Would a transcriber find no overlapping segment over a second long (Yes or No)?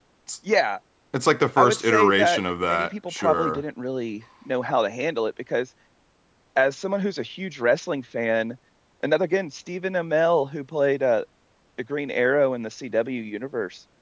No